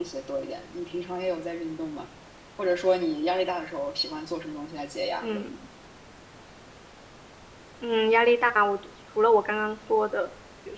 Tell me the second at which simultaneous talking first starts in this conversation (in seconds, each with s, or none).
none